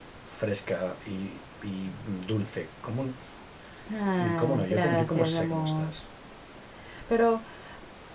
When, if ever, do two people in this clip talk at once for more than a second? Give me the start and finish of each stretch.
4.4-5.9

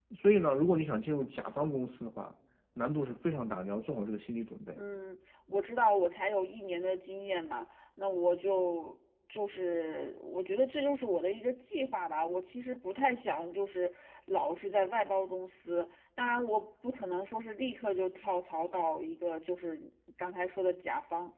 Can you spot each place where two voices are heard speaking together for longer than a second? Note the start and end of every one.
none

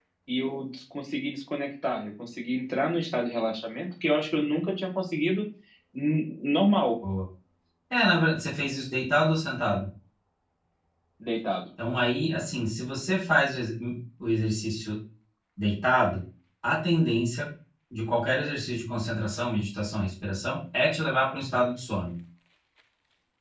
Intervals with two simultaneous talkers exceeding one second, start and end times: none

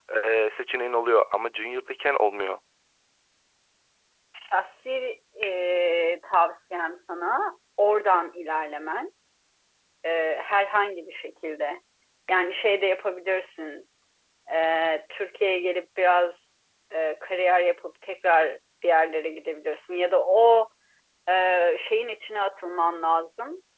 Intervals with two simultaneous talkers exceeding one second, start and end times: none

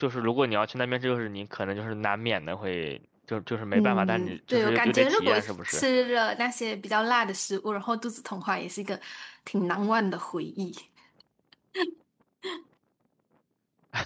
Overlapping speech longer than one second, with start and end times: 3.7-5.8

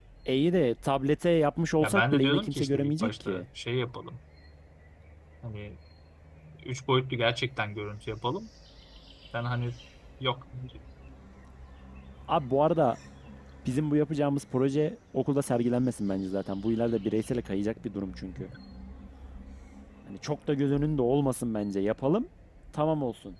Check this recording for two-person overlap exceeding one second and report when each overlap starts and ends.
1.8-3.4

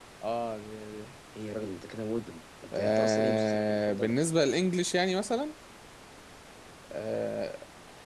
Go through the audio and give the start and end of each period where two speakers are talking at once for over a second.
2.7-4.1

